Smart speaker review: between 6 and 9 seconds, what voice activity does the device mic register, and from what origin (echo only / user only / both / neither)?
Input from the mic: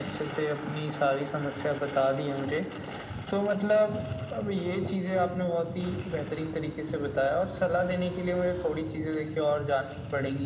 echo only